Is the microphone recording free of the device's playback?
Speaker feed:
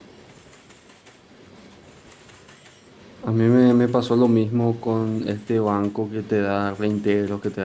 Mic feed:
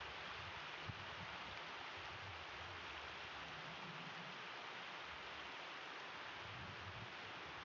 Yes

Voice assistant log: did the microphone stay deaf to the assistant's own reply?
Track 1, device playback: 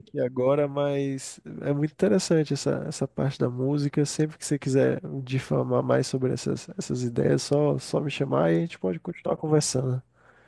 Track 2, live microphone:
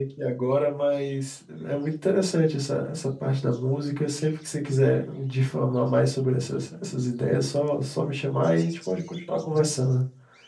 No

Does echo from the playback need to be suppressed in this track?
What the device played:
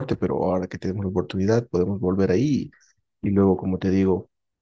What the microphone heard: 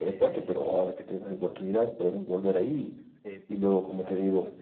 Yes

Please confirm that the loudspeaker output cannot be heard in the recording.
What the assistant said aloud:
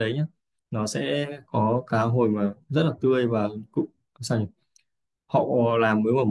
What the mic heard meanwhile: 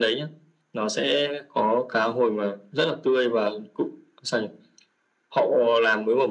No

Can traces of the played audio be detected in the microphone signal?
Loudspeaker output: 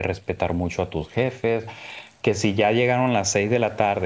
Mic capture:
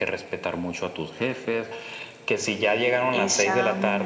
Yes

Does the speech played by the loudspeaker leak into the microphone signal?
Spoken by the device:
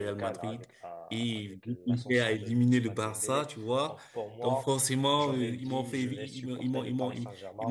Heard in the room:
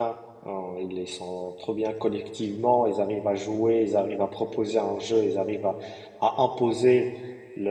No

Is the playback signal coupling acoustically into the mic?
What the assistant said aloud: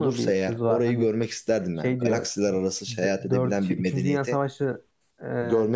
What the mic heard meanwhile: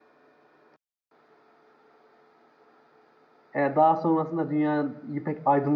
No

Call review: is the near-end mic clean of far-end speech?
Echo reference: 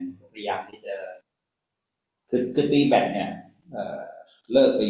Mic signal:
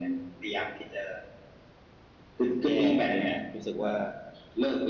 No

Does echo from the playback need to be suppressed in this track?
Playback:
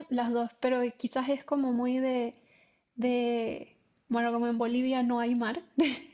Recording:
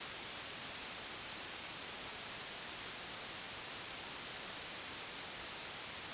No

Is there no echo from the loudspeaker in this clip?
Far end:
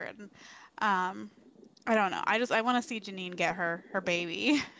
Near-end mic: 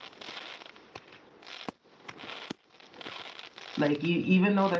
Yes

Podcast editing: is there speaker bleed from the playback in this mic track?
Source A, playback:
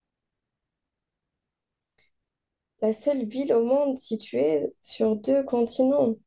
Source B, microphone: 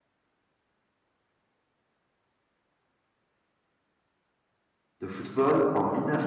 No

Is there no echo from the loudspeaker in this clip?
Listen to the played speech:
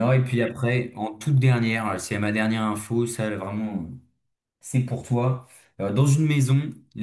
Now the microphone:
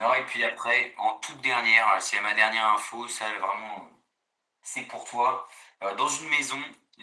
No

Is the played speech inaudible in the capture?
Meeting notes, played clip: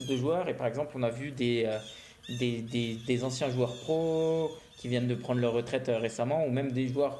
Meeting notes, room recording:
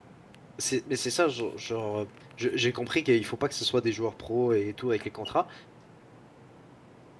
Yes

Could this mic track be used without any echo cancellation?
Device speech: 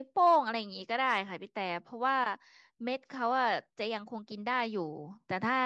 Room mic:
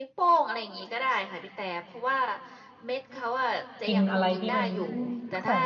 No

